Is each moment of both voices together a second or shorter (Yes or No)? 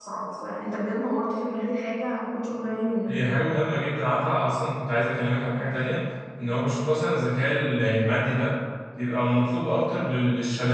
Yes